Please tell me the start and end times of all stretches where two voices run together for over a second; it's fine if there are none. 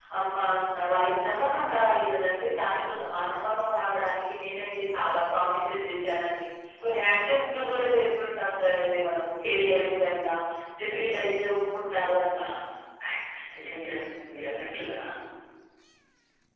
none

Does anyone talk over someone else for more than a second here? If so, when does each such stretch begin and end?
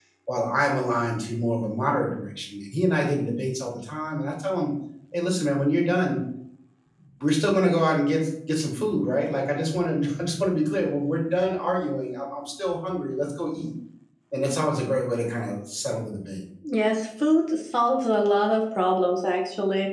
none

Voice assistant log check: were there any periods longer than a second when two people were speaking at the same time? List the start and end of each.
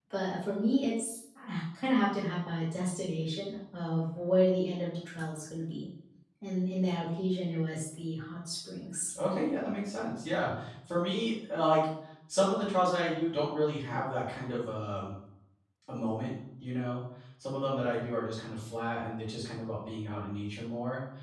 none

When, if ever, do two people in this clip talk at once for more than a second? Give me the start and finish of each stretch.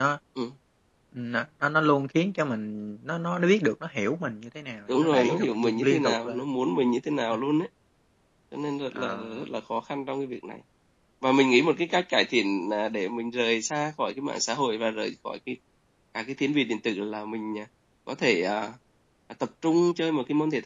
4.9-6.4

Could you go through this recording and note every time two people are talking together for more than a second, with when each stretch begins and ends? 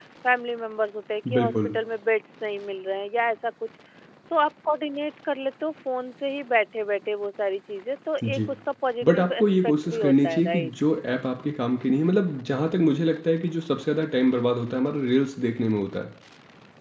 9.0-10.7

